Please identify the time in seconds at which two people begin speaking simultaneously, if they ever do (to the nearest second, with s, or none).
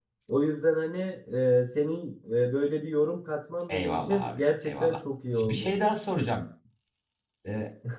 4 s